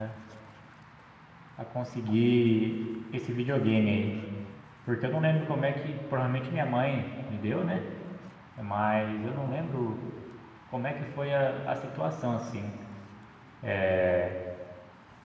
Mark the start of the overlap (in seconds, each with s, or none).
none